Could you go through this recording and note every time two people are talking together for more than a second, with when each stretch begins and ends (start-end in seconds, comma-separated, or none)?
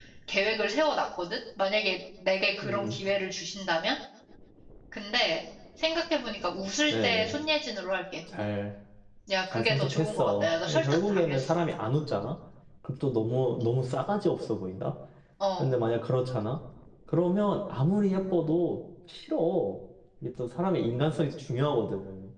9.5-11.6